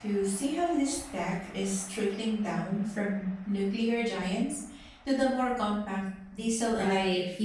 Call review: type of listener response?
taking over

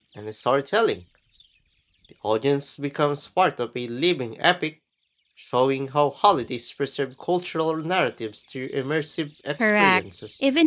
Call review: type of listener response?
taking over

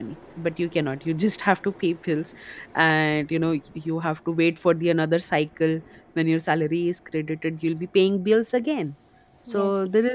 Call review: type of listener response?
listening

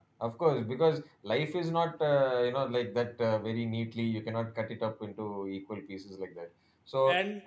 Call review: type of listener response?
listening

